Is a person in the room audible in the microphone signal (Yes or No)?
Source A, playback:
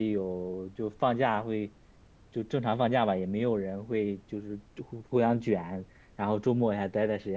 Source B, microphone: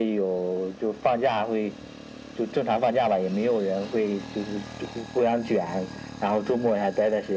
No